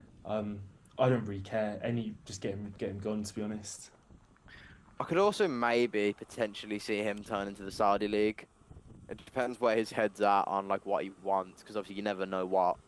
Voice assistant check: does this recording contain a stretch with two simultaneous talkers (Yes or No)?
No